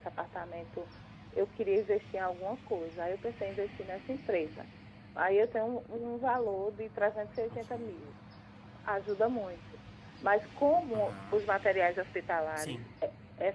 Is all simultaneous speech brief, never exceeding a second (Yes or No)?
Yes